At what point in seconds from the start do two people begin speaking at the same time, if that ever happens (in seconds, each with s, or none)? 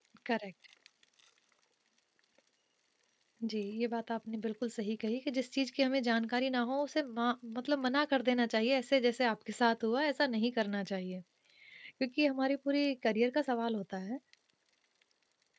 none